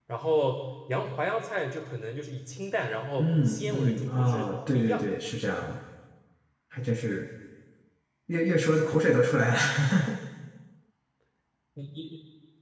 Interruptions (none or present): present